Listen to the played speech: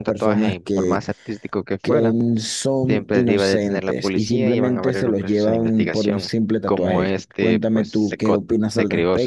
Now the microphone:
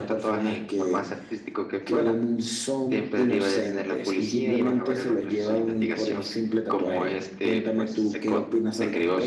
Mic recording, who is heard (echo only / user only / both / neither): echo only